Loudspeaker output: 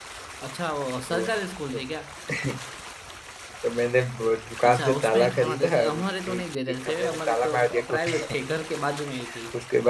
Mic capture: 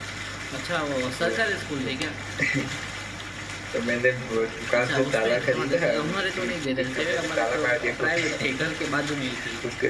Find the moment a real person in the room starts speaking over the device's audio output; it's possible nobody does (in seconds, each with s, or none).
none